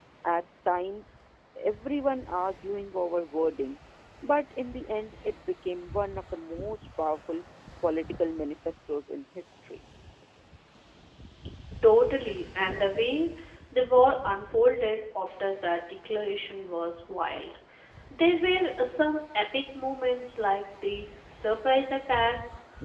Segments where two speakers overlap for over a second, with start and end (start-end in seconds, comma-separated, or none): none